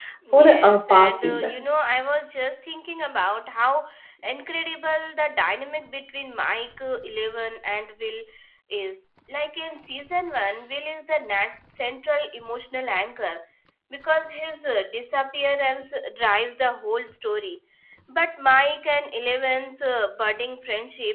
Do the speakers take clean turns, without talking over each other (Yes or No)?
No